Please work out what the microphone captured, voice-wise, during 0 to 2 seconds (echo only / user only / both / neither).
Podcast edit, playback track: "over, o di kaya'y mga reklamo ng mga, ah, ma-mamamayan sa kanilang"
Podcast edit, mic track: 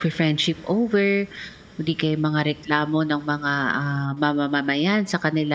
echo only